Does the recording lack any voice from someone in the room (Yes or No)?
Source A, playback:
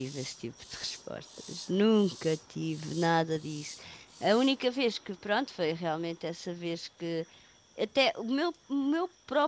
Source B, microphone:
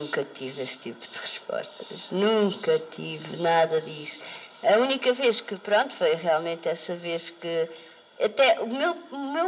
Yes